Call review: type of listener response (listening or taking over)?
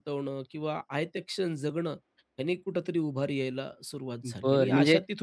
taking over